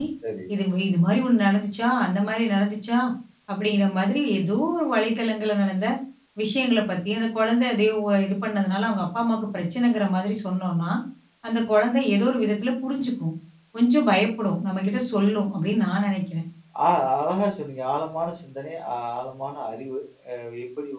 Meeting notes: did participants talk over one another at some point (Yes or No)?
No